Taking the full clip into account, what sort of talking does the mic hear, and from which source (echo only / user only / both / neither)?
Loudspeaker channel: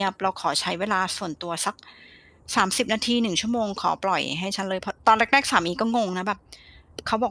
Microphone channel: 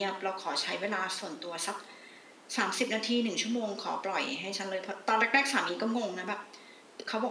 echo only